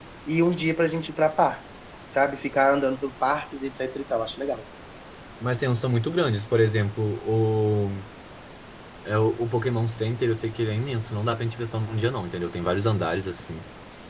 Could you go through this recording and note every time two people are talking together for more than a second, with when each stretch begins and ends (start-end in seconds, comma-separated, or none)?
none